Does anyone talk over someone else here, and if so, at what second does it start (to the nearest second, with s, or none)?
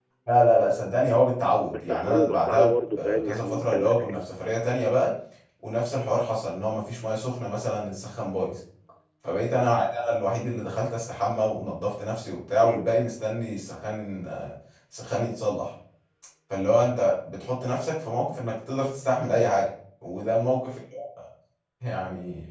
2 s